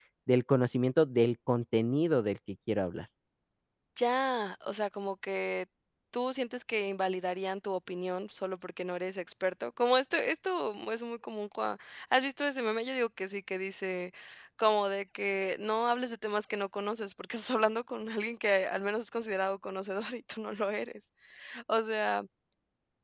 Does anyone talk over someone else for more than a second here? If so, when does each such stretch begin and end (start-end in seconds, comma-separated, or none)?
none